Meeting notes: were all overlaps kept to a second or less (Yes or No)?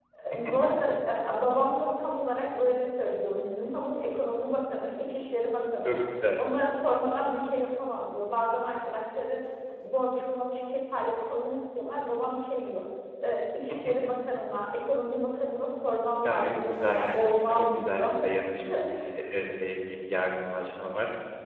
No